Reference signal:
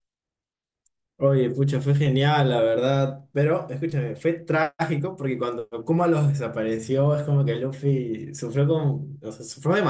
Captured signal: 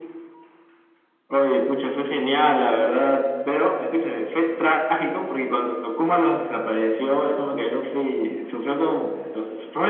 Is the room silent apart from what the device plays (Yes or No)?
Yes